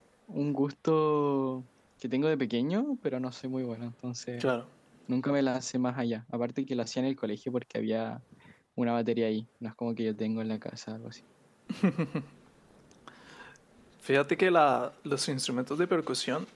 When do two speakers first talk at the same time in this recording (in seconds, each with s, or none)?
none